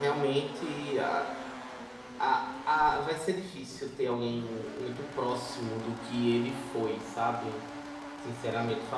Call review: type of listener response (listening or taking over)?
listening